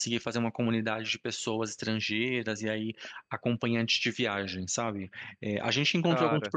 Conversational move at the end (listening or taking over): listening